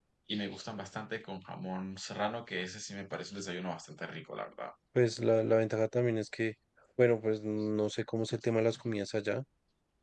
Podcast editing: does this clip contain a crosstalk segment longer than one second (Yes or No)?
No